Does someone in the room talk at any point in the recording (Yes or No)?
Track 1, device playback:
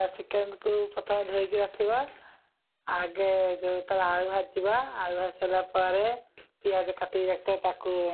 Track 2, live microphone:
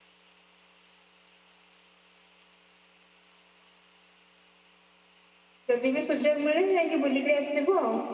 Yes